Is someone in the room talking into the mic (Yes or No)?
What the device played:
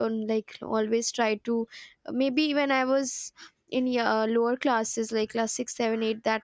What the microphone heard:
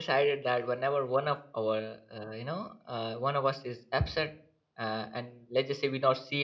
Yes